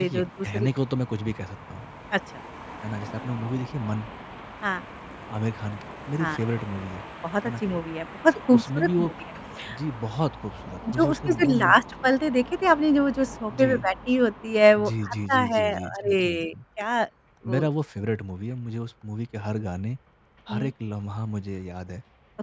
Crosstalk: present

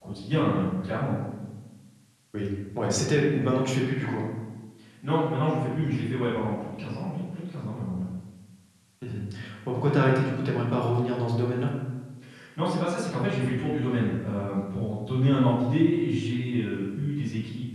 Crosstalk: none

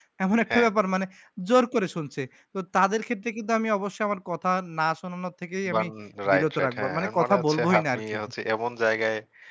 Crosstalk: present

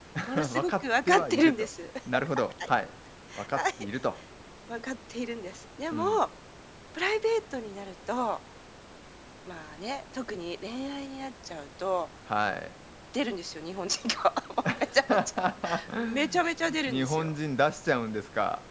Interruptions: present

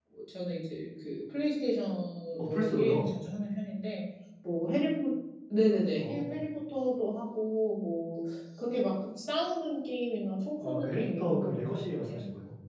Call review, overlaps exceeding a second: present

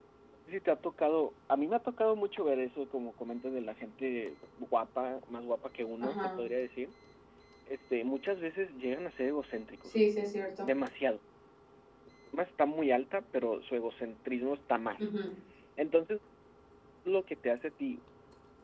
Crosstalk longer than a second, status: none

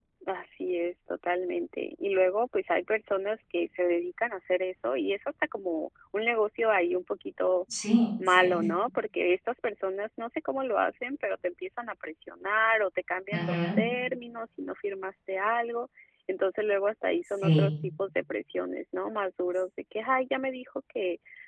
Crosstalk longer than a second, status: none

